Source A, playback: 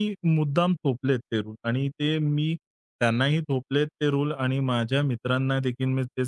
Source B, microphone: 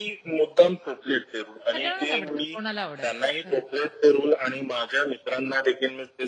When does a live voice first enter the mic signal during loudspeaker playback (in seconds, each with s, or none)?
1.7 s